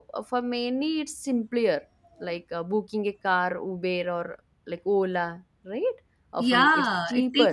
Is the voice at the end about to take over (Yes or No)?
Yes